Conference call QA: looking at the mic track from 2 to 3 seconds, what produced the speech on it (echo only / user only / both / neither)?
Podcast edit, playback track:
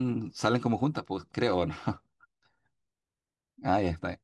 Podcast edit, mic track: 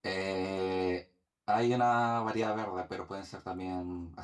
user only